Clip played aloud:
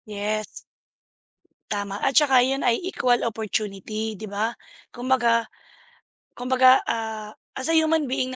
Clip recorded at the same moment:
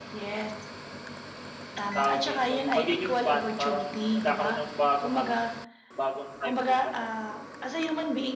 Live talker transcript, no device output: tawag dito yung pagiging fan parang nagkakaroon ng bagong ano, bagong type of ano

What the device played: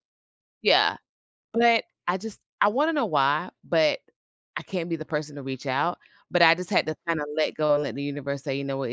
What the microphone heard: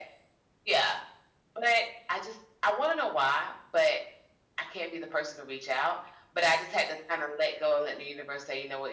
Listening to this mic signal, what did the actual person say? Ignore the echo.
none

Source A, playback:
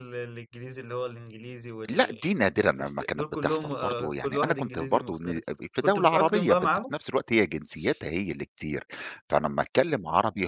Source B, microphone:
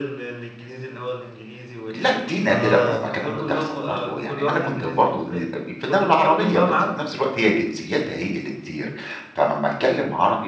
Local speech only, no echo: آه أه.

